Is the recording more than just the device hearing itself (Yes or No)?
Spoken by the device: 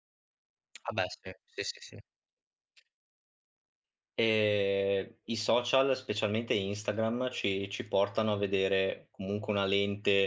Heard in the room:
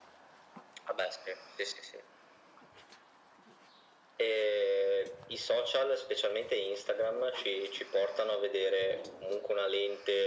No